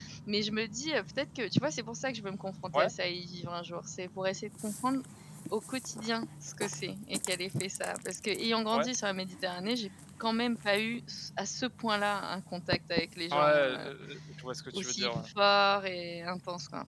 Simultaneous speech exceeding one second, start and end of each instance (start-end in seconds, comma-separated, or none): none